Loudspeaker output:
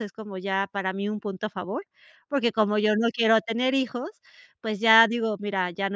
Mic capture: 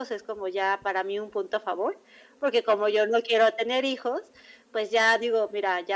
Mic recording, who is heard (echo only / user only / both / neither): echo only